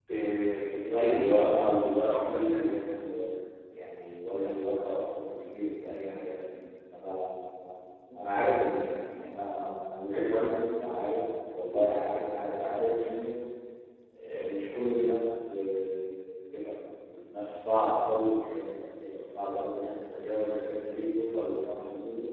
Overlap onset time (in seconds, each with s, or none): 1.0 s